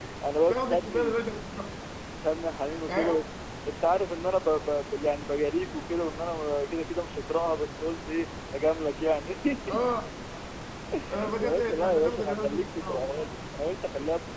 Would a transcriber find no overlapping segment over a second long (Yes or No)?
No